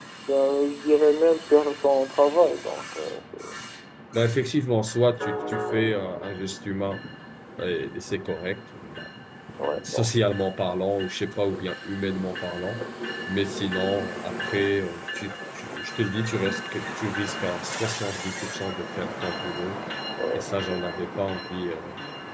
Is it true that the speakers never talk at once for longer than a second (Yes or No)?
Yes